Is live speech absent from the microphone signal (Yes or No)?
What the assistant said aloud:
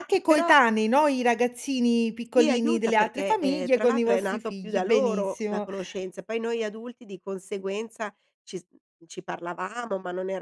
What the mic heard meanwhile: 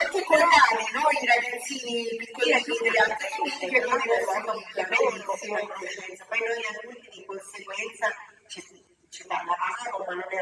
Yes